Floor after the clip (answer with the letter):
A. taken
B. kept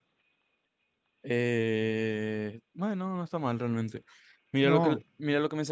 B